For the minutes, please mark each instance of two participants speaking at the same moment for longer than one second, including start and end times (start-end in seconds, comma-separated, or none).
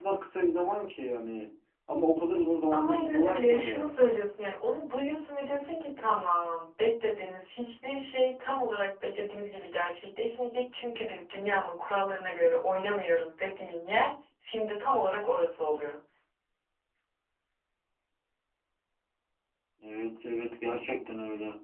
2.7-3.9